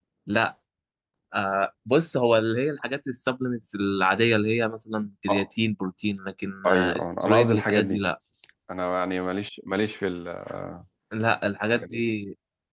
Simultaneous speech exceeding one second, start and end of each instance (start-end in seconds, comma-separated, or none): 6.7-8.0